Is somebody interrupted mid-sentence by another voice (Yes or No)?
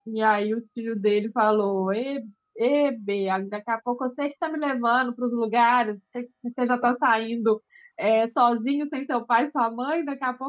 No